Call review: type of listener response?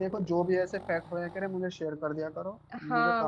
taking over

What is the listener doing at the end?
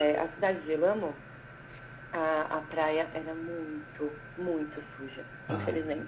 taking over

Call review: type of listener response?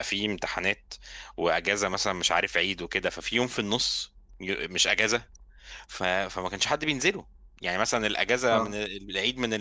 listening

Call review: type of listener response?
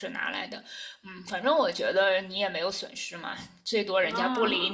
listening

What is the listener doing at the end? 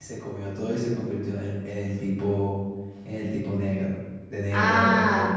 taking over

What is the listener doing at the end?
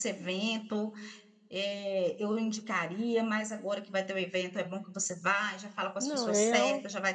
listening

